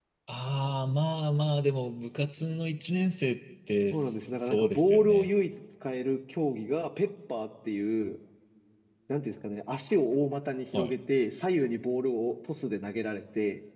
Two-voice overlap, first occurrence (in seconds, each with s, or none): 3.9 s